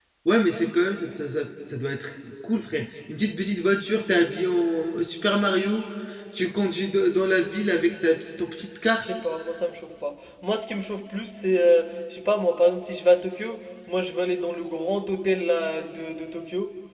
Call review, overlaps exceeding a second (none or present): none